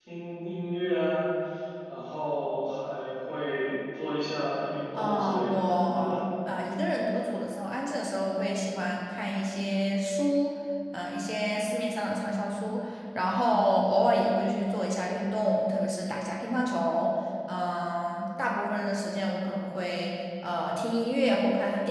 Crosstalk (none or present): present